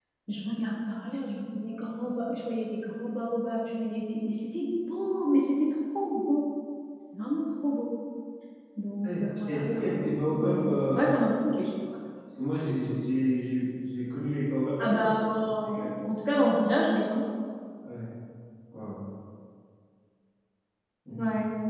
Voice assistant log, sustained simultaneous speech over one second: present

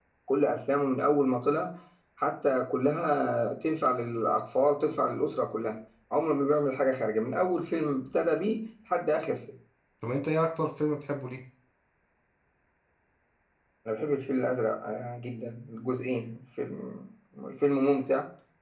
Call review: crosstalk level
none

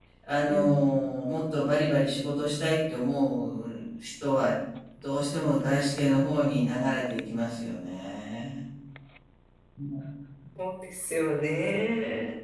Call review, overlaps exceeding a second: none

